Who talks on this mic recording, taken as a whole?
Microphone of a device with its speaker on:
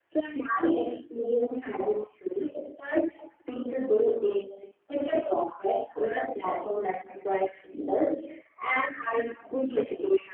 echo only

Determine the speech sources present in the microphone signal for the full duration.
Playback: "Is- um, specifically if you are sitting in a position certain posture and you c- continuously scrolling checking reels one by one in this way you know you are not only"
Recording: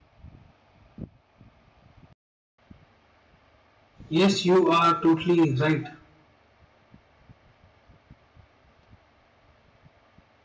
user only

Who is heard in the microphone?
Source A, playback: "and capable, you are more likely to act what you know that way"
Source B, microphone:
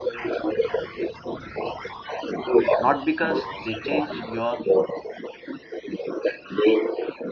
both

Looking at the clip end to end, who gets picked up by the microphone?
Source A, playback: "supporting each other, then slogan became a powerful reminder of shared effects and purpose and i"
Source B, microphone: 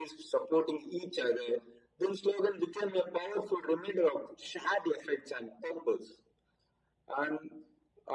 echo only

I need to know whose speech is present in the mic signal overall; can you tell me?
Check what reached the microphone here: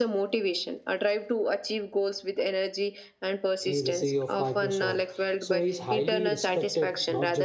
both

